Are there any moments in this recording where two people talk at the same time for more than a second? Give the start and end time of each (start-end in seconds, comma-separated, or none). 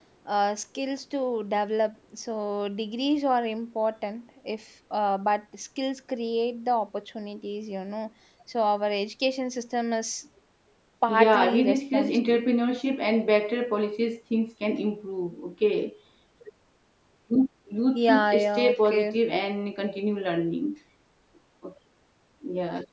11.1-12.4, 17.9-19.1